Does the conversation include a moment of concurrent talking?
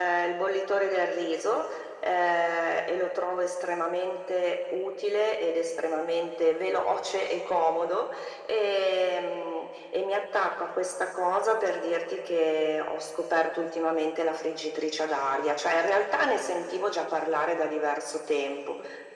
No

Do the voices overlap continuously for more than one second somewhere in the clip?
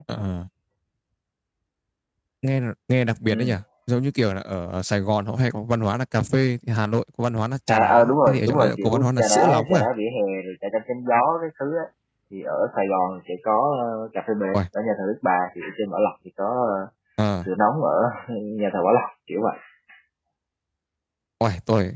Yes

